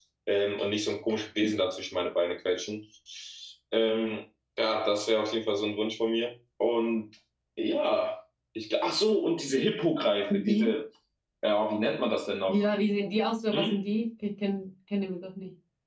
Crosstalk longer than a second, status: none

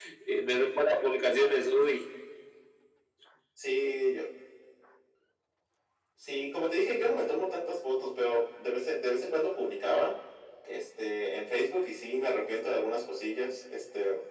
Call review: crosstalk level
none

